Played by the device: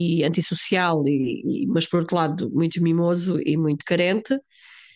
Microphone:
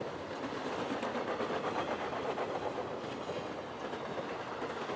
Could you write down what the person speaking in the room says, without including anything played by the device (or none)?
none